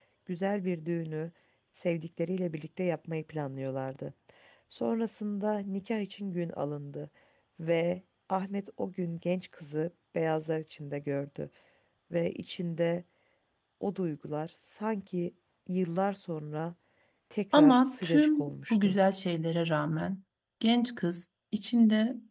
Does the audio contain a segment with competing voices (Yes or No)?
Yes